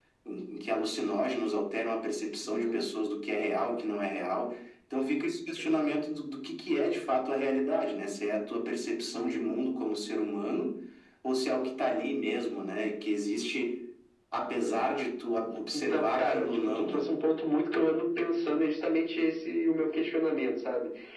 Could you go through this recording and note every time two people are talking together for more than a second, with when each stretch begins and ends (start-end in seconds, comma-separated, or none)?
15.7-17.1